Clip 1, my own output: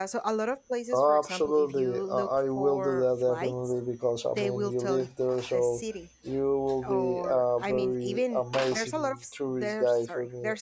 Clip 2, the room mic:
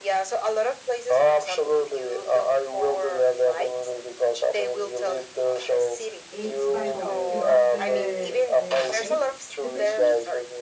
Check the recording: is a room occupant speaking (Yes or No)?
Yes